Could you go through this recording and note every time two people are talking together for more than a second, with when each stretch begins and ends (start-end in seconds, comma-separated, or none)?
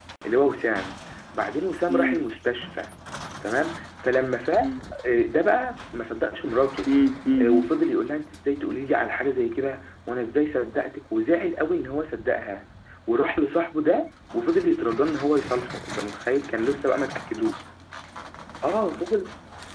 none